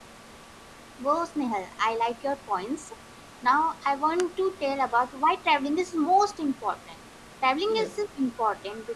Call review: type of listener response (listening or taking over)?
listening